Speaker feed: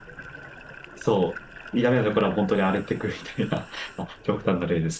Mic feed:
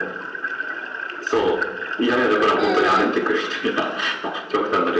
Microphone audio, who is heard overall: both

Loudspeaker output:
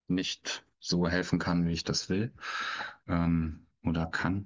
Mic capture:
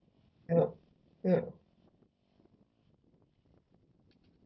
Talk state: user only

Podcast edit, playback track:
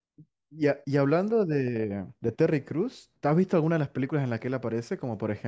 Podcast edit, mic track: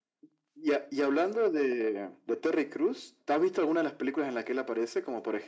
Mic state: echo only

